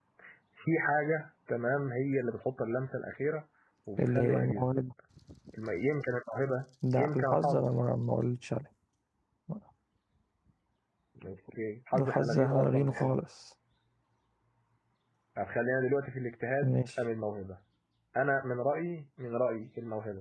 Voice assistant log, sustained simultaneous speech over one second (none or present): present